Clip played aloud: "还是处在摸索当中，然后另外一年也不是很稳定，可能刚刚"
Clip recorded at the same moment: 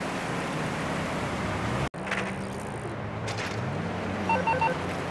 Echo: none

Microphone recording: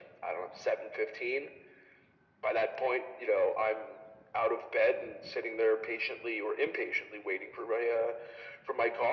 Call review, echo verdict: present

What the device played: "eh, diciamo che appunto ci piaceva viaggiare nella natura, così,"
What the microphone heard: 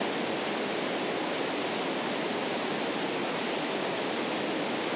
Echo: none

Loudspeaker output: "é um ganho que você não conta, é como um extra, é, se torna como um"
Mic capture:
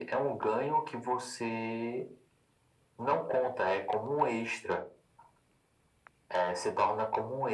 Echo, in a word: present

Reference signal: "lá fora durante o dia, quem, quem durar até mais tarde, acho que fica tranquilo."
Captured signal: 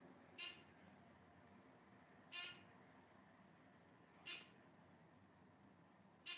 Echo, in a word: none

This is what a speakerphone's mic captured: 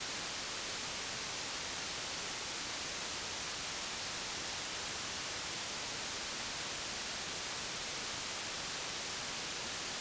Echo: none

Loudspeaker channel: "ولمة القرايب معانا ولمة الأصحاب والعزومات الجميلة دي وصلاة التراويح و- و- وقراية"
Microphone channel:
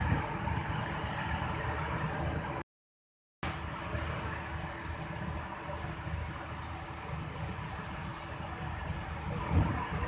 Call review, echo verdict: none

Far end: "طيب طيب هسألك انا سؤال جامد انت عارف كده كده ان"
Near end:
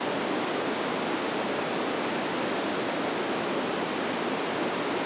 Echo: none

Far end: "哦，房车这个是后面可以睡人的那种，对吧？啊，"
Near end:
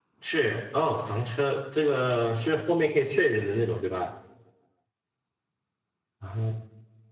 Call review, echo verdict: present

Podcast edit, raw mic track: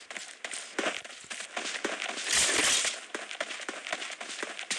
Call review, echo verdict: none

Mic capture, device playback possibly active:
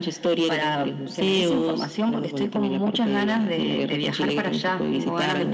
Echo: present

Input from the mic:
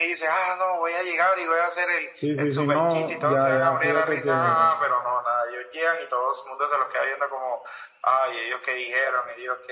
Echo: present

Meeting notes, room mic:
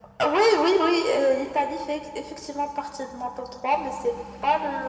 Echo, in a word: present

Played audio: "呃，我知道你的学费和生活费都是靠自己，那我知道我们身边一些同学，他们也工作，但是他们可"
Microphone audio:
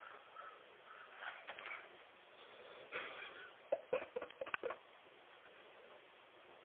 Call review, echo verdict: none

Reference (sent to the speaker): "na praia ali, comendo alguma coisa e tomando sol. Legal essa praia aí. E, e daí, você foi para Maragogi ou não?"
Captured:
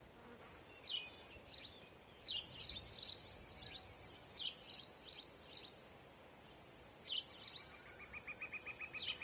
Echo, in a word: none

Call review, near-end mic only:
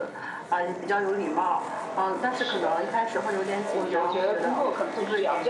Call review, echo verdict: present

